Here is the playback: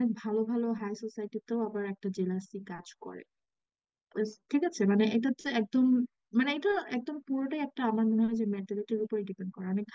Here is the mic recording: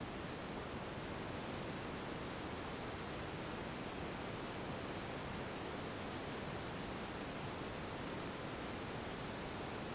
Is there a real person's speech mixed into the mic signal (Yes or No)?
No